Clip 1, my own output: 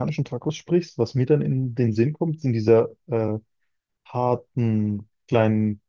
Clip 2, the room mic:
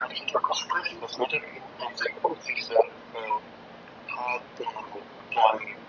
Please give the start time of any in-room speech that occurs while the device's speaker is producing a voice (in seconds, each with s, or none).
none